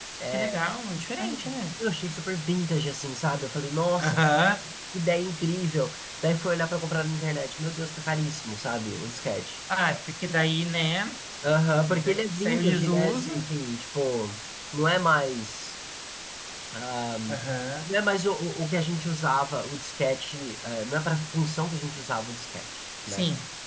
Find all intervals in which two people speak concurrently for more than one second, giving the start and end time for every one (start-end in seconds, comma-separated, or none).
11.9-13.3